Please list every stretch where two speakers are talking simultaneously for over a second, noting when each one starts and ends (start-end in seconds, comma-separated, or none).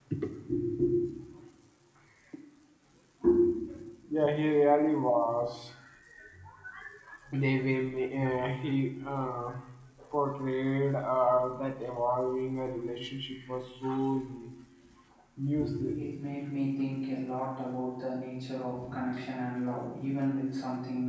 none